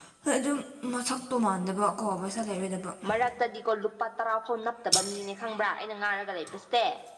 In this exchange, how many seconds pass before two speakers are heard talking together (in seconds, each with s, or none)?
none